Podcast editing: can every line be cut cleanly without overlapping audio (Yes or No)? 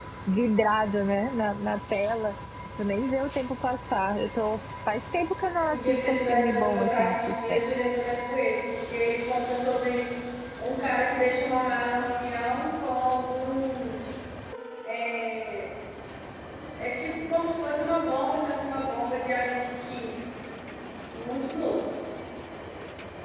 No